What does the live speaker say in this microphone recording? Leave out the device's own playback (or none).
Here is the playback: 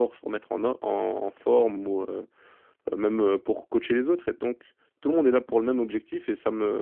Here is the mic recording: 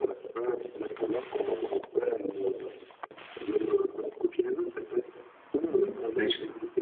Mm. Ouais, je,